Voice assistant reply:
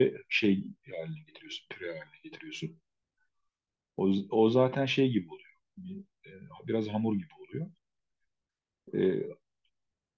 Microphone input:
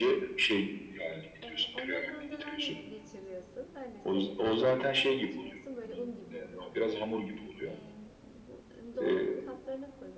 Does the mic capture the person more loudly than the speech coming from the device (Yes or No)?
No